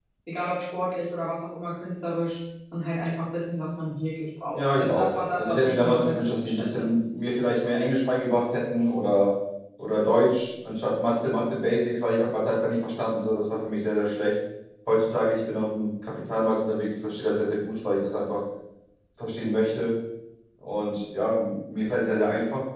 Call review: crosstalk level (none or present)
present